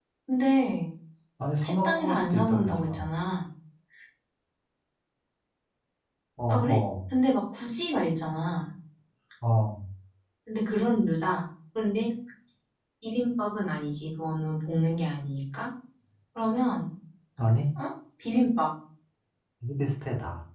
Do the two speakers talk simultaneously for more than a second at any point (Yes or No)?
Yes